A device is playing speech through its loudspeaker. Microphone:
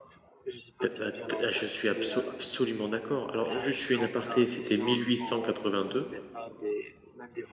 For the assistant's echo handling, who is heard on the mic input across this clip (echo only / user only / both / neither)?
both